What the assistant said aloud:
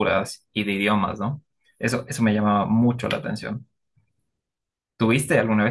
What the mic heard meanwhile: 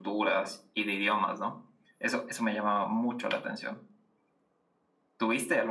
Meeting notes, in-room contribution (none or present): none